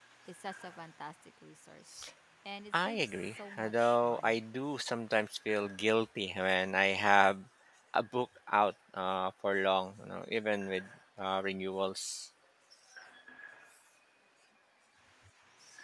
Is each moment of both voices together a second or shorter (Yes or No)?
No